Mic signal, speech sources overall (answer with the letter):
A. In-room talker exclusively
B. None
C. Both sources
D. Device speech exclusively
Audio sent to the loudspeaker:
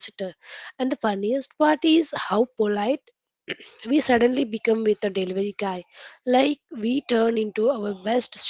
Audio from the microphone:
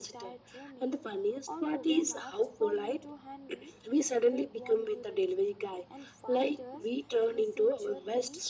C